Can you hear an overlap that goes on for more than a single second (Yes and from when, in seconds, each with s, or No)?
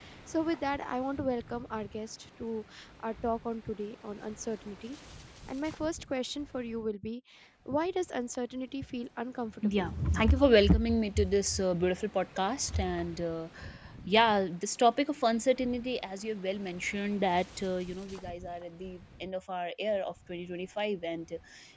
No